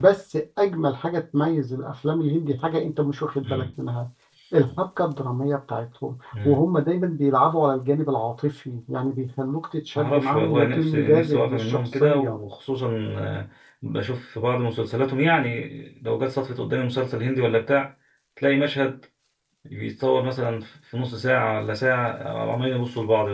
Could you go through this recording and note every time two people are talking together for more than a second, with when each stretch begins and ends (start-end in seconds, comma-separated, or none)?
9.9-12.4